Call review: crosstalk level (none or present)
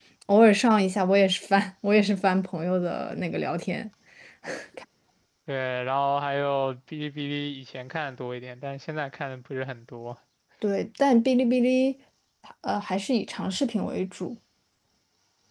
none